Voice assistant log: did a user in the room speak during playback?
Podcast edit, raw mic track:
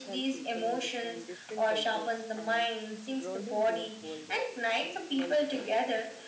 Yes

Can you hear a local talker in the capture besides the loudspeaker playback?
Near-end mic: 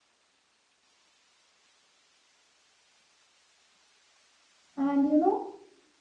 Yes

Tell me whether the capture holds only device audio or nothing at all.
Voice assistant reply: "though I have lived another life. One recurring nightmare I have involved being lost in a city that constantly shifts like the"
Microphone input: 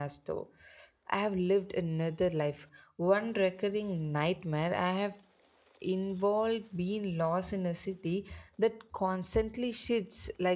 Yes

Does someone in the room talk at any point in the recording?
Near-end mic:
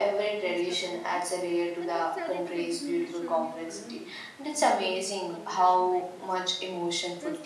Yes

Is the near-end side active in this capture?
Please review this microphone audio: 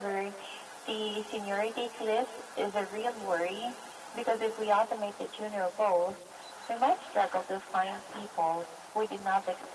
No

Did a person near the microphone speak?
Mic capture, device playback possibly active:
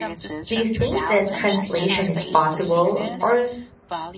Yes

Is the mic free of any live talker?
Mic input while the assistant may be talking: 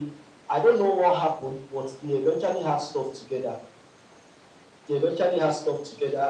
Yes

